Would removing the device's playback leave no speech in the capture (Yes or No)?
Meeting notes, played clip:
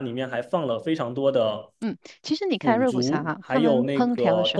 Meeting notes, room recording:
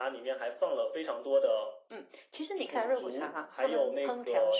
Yes